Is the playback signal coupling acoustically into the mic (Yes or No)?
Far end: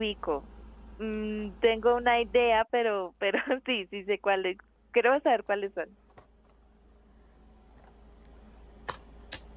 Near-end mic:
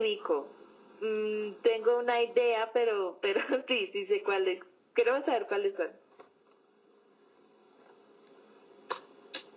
Yes